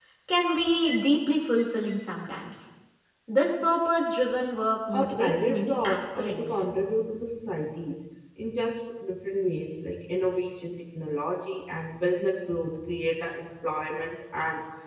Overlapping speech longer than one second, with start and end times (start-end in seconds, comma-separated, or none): 4.9-6.6